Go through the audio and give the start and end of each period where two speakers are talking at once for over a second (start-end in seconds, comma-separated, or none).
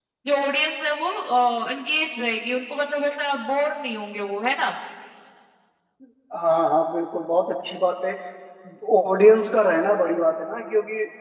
none